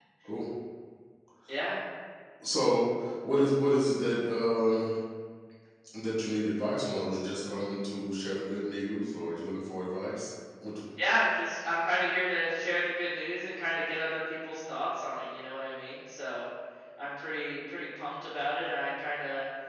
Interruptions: none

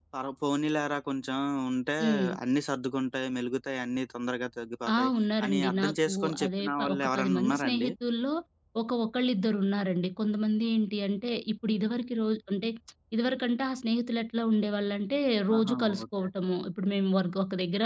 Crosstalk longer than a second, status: present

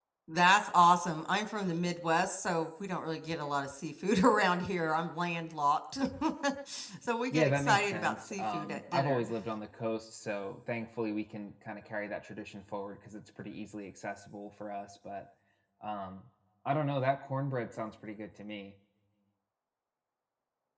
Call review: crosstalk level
present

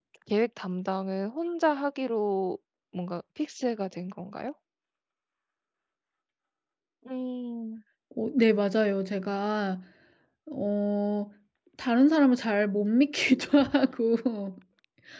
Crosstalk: none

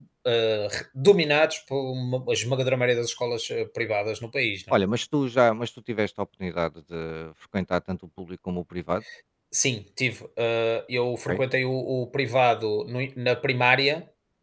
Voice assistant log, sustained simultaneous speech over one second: none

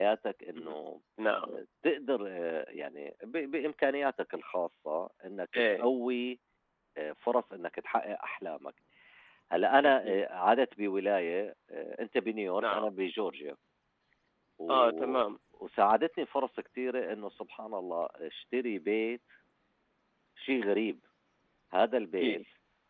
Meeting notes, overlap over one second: none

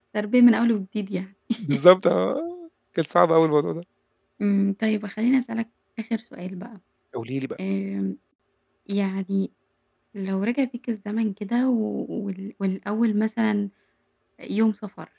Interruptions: none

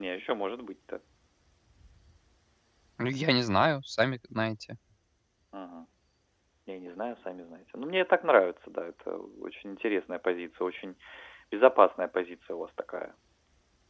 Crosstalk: none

